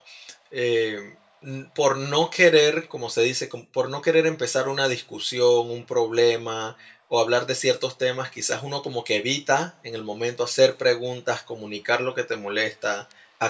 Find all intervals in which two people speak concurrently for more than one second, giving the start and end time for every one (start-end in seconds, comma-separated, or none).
none